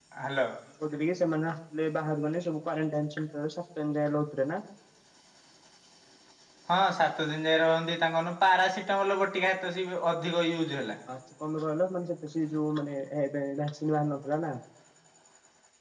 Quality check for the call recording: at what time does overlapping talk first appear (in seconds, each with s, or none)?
none